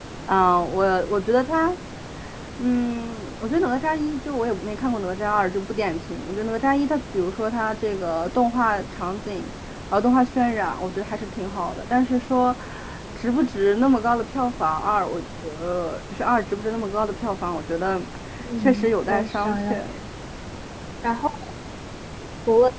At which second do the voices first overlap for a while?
18.6 s

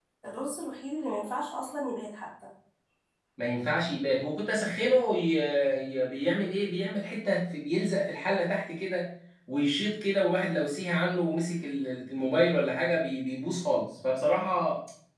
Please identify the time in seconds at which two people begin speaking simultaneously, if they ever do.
none

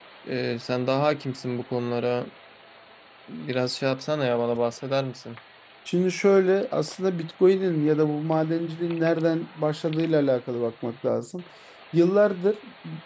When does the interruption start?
none

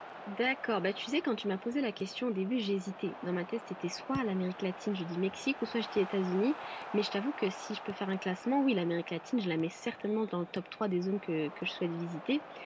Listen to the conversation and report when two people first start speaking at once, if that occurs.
none

